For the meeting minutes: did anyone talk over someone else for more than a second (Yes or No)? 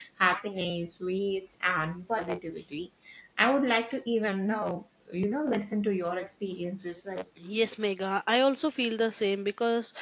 No